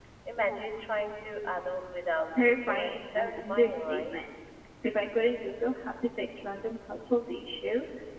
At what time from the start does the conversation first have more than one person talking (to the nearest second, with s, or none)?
2 s